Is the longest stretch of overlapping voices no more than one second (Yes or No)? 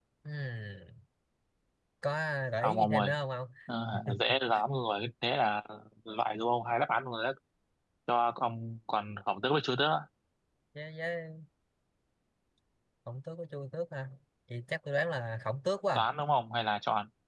Yes